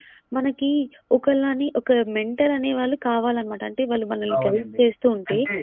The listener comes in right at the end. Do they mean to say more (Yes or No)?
Yes